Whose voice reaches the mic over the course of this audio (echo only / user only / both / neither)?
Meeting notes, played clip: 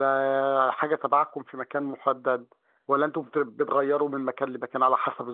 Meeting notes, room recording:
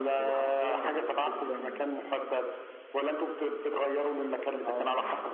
both